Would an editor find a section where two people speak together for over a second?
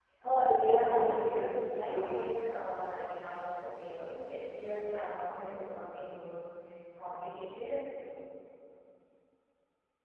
Yes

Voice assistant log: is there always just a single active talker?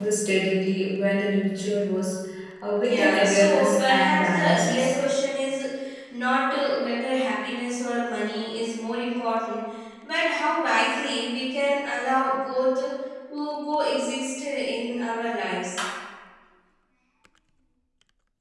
No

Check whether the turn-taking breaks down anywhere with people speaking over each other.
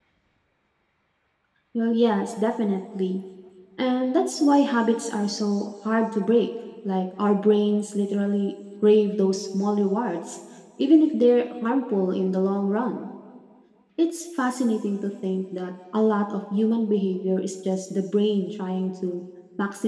No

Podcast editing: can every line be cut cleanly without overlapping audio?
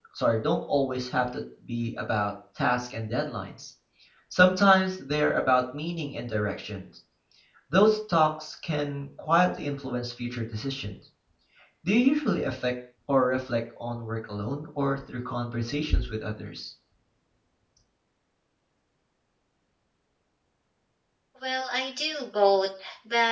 Yes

